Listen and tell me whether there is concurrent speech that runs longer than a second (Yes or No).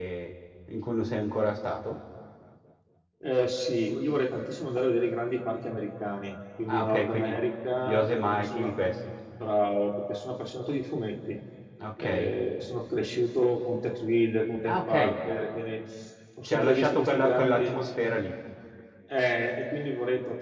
Yes